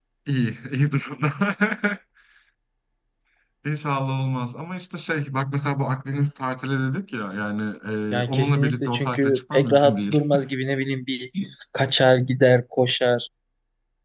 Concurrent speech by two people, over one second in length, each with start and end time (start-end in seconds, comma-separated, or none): 8.2-10.2